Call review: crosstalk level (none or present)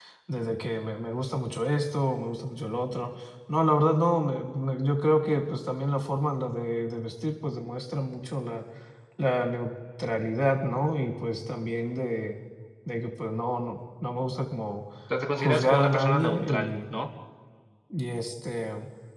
present